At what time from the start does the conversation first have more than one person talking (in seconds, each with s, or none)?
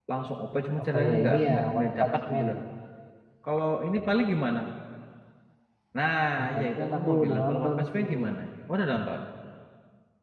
0.8 s